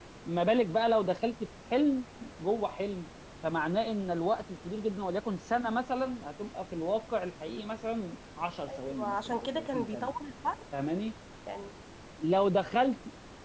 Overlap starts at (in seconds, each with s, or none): 8.7 s